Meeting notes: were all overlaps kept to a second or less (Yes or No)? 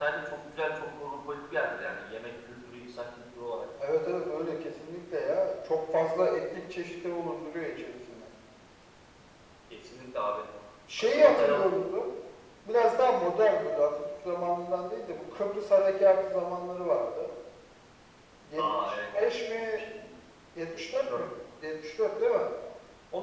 No